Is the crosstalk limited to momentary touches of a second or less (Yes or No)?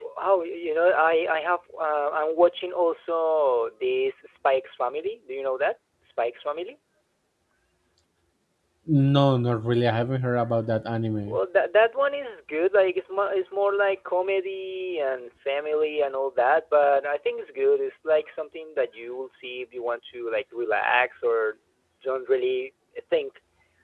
Yes